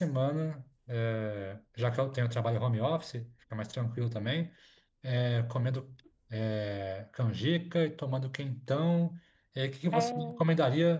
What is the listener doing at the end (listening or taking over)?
listening